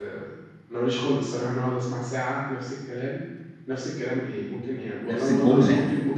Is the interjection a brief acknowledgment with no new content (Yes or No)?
Yes